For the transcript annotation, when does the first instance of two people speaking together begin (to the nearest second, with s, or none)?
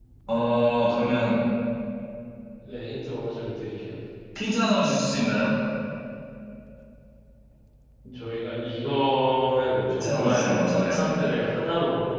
10 s